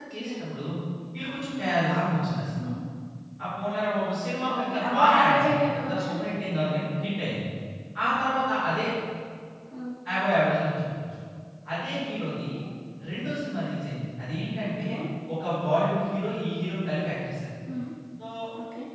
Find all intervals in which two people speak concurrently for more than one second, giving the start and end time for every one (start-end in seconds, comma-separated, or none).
4.6-6.1